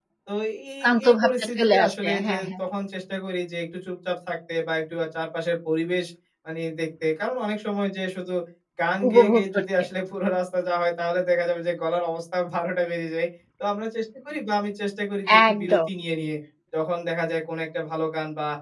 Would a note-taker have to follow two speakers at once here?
Yes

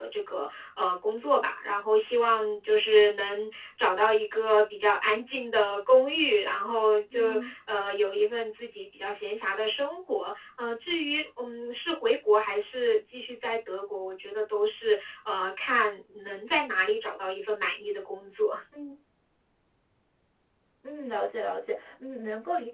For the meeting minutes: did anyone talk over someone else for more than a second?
No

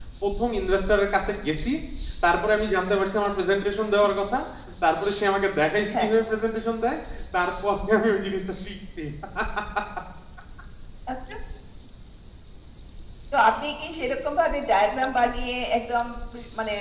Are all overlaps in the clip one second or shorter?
Yes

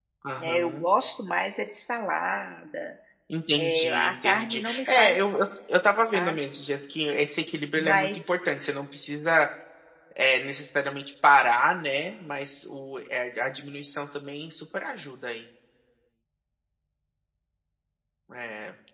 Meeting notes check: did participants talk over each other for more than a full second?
Yes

